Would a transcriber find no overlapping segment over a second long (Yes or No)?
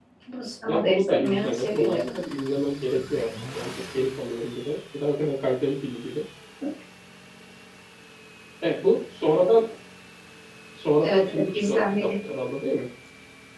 No